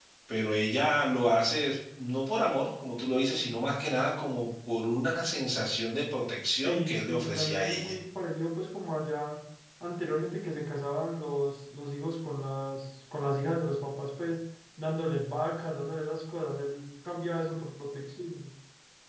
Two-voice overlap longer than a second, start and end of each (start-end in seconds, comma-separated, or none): 6.5-8.0